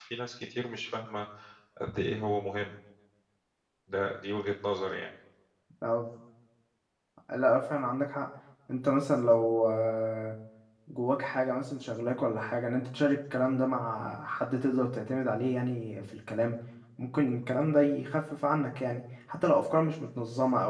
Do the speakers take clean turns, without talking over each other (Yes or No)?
Yes